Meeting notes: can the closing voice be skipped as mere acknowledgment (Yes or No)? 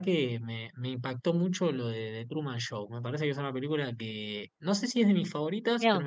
Yes